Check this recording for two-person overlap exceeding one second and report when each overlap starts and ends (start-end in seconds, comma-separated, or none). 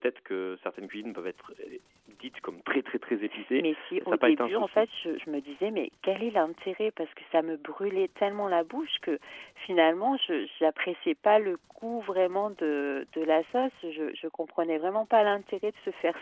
3.6-4.8